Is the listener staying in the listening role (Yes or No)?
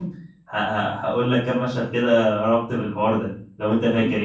No